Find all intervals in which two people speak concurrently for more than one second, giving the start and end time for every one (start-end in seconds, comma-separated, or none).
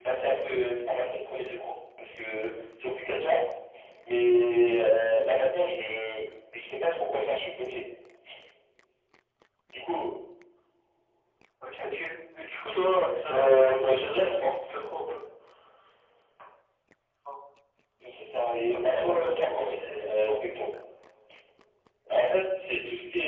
13.3-14.5, 18.7-20.3